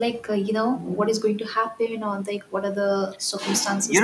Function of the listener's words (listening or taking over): taking over